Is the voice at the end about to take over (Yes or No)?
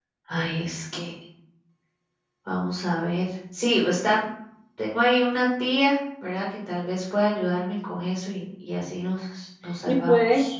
Yes